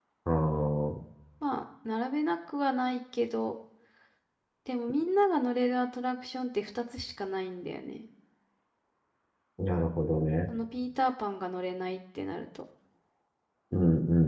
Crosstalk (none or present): none